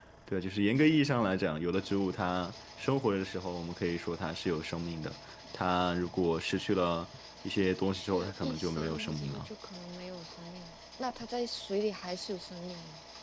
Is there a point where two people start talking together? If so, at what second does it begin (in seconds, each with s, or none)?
7.9 s